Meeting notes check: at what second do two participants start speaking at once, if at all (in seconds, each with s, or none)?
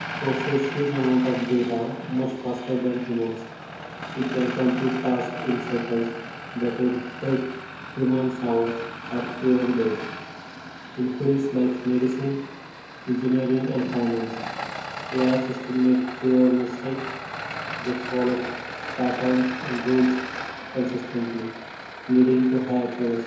none